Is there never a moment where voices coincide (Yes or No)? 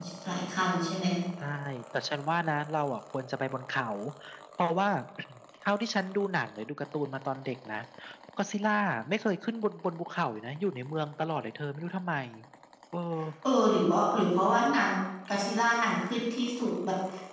Yes